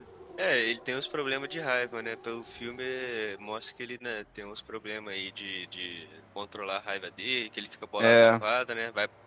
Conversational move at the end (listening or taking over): listening